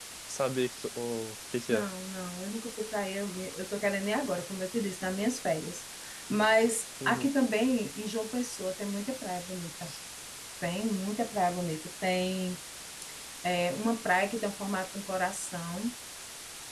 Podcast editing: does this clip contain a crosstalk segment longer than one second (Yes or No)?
No